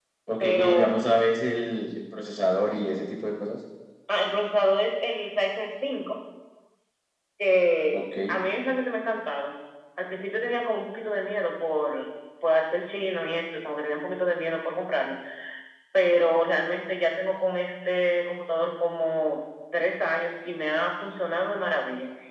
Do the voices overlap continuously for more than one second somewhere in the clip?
No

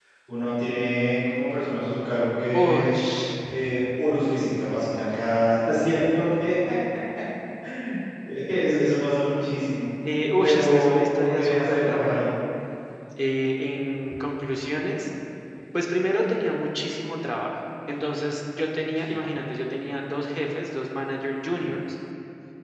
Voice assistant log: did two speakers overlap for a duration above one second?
Yes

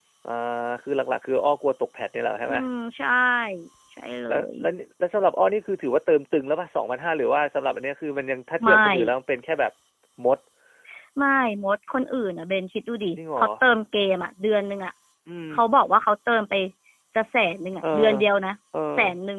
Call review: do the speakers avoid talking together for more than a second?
Yes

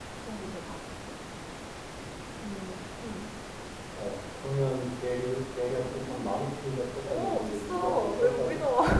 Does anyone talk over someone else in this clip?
Yes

